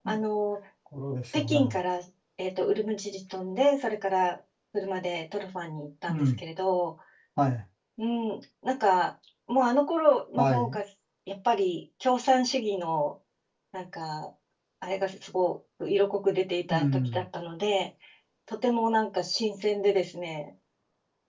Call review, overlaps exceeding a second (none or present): none